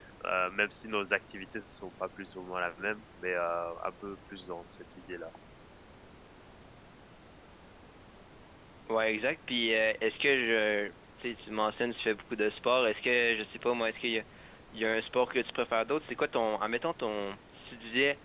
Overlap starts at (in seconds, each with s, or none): none